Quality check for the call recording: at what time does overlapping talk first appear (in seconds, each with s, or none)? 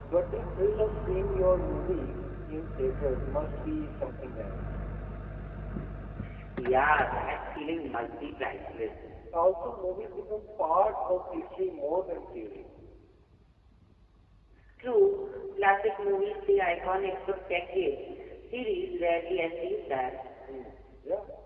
none